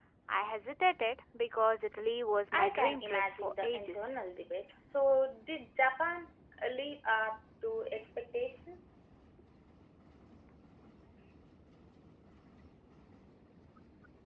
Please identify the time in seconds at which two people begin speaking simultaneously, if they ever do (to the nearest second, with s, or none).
3 s